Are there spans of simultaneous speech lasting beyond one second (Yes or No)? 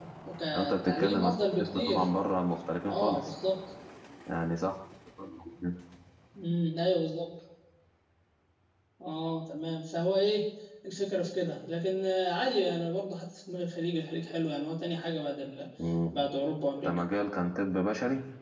Yes